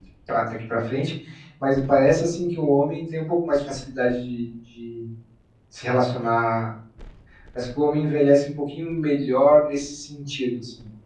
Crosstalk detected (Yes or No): No